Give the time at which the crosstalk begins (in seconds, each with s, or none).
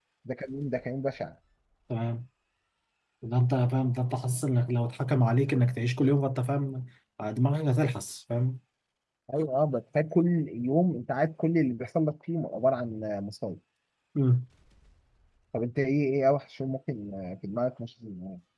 none